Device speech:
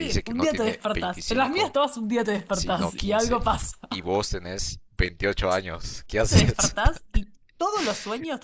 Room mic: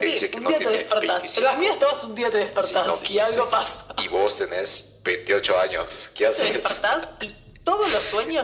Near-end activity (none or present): none